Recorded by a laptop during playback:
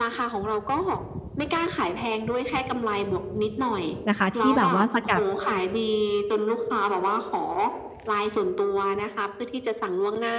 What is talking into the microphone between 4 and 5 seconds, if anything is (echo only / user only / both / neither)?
both